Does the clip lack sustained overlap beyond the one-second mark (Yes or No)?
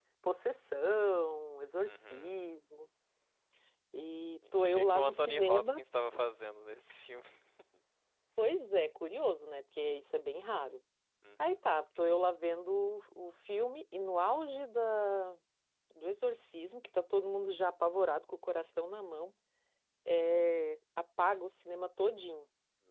No